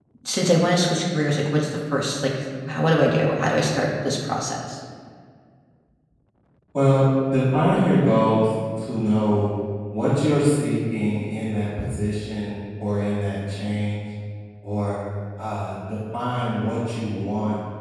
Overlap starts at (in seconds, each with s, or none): none